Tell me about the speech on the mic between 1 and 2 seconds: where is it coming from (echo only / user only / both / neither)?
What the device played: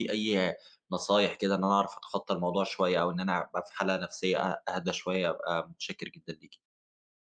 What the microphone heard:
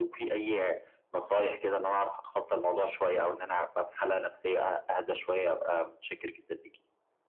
echo only